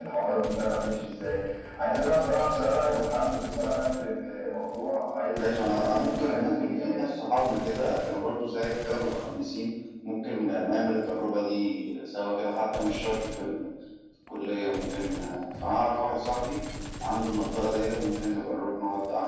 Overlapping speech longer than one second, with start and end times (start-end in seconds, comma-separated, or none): 5.4-7.1